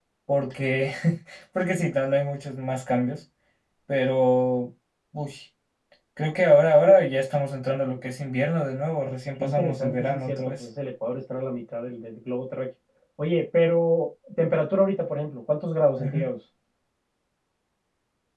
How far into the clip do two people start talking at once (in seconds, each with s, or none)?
9.4 s